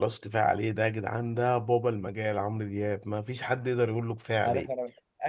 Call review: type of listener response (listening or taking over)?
taking over